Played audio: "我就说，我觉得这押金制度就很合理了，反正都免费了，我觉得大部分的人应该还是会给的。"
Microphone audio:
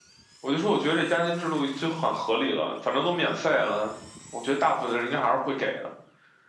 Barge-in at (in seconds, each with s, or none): none